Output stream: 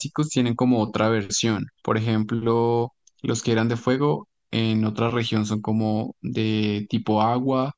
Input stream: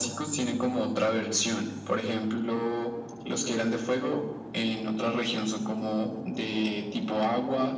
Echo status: present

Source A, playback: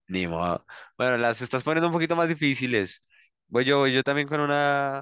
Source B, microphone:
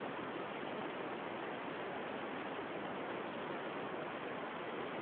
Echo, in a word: none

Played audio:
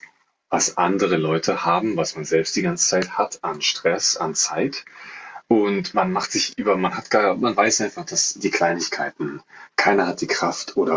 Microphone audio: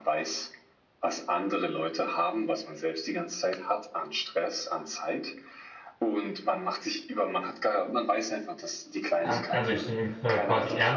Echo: present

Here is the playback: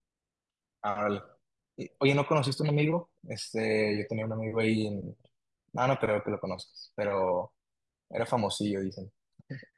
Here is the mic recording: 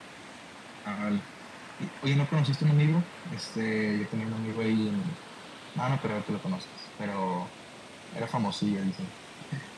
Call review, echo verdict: present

